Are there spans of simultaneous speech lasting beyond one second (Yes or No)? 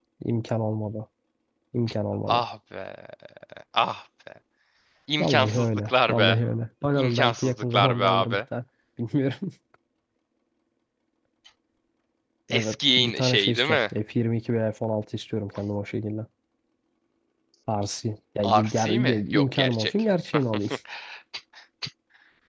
Yes